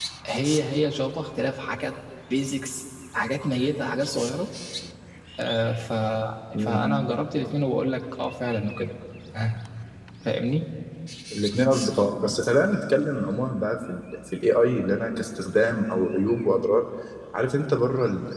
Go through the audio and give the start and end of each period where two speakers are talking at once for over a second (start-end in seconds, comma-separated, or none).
none